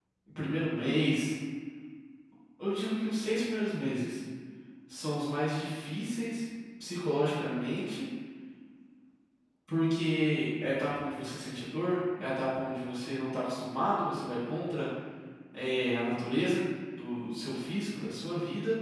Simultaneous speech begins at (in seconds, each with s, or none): none